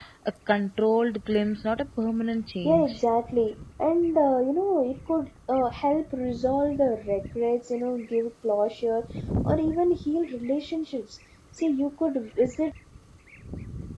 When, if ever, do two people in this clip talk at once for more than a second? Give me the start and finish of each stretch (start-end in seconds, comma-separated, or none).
none